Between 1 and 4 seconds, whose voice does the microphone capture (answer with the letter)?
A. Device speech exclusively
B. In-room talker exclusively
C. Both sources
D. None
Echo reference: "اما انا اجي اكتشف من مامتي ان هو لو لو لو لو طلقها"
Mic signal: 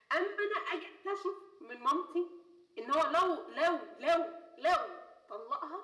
A